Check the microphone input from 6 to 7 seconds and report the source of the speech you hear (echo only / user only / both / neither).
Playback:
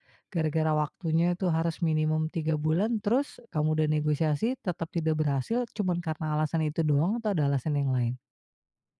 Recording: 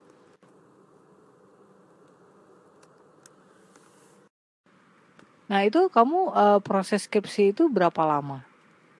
user only